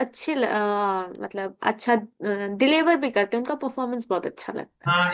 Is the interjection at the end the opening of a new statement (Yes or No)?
Yes